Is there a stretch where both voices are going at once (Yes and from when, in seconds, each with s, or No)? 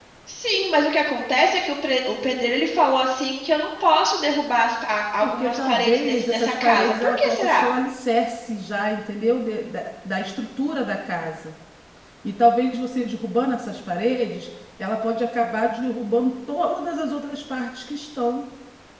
Yes, from 5.2 s